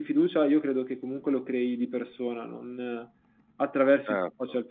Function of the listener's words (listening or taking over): taking over